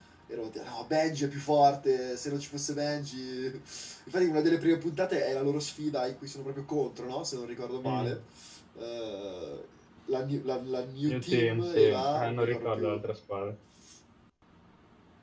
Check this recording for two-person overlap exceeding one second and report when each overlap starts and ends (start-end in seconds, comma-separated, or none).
11.1-13.0